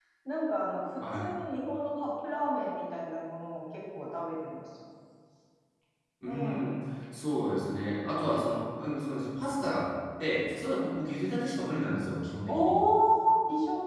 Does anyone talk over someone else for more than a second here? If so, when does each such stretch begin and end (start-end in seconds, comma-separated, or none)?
none